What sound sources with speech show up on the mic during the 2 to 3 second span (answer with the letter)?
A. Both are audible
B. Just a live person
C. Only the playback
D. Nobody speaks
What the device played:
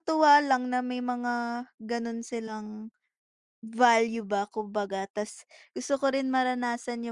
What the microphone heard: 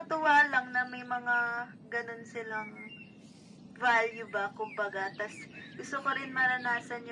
C